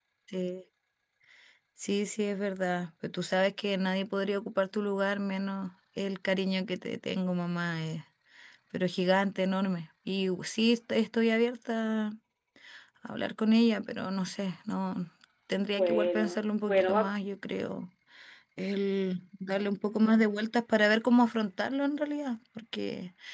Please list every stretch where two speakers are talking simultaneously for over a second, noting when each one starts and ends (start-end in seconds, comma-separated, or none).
15.7-17.1